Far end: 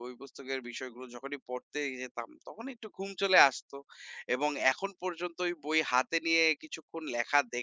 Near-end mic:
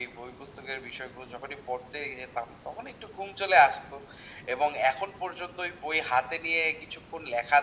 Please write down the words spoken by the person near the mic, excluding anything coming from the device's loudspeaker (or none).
none